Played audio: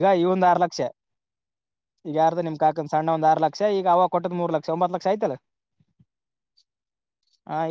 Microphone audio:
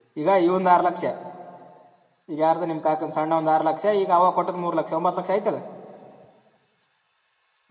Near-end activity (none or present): none